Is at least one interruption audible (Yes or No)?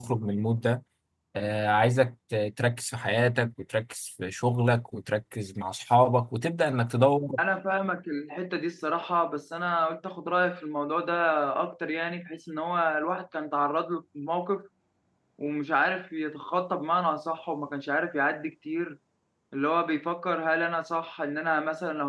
No